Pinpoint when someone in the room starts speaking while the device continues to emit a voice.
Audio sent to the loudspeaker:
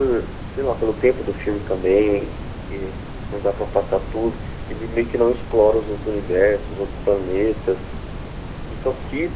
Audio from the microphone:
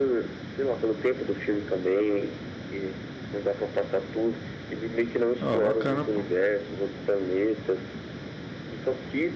5 s

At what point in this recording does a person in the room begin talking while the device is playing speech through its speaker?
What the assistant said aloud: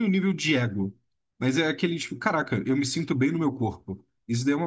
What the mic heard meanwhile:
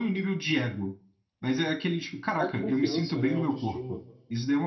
2 s

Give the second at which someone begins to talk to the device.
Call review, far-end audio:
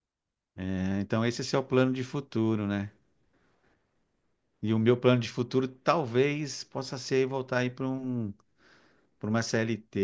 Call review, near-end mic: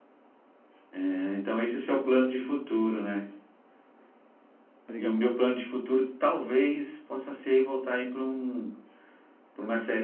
5 s

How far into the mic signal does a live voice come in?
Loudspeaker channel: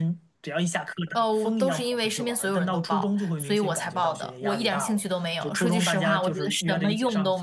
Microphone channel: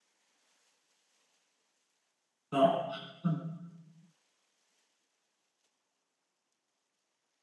3 s

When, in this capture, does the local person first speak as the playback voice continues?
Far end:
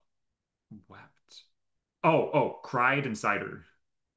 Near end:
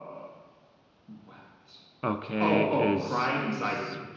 2 s

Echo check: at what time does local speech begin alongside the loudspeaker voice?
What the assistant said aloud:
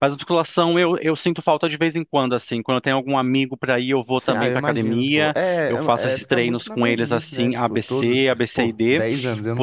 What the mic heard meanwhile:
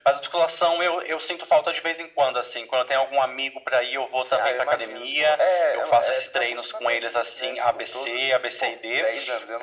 none

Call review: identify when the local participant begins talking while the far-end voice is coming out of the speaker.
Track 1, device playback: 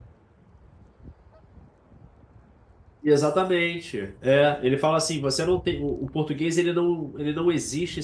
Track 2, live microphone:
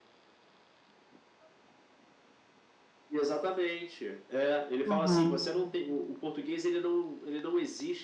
5 s

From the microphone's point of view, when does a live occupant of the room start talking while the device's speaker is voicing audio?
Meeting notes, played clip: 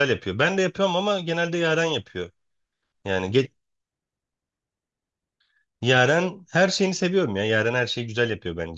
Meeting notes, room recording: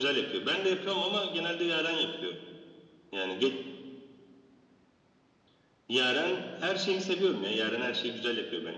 none

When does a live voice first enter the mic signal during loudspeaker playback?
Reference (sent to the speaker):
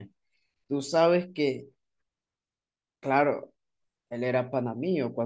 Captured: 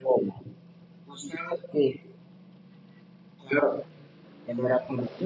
none

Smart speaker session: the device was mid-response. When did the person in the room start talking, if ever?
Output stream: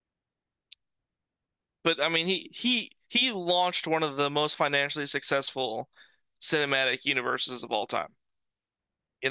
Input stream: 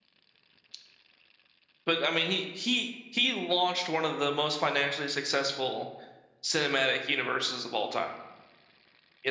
none

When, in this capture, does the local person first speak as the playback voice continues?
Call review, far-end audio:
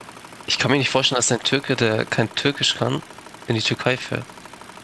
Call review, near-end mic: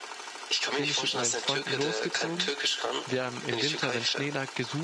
1 s

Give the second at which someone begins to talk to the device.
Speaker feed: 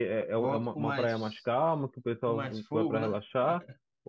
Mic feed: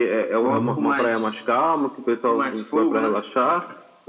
0 s

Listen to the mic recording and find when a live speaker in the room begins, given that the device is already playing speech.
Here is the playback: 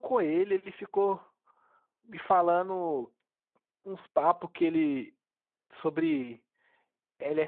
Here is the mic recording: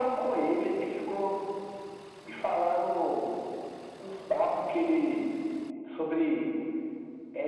none

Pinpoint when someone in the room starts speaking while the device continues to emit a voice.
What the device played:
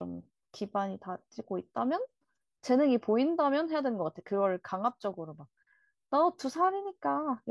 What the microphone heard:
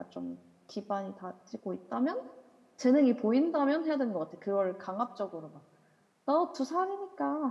none

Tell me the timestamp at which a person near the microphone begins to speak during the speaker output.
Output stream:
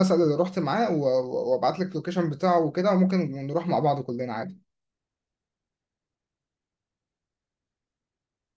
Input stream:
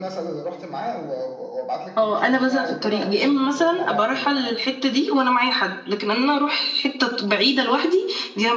2 s

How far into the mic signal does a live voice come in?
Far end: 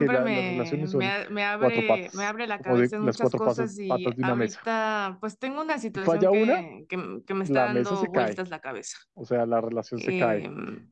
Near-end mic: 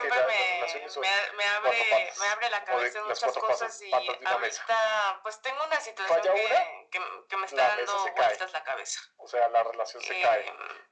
none

